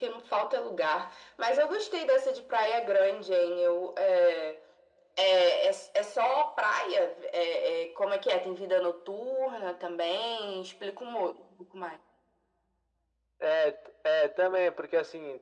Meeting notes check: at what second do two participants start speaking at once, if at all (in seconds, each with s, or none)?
none